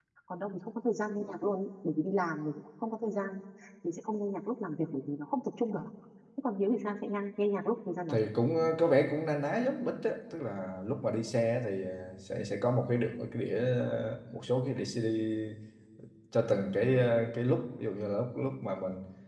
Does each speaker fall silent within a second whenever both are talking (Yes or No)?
Yes